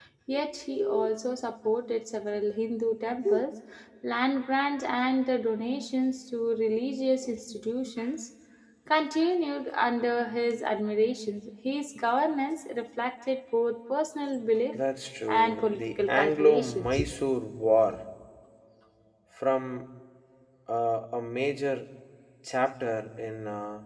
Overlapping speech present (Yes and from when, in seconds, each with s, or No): Yes, from 15.3 s